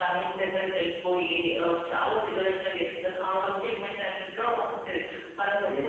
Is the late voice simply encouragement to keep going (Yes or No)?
Yes